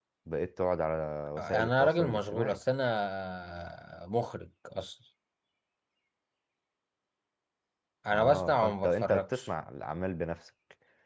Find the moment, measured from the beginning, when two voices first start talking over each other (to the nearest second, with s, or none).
1 s